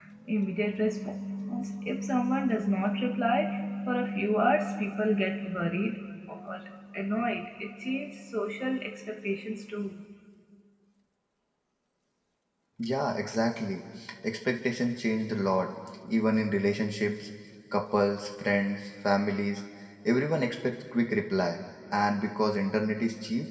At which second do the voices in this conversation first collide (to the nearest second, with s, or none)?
none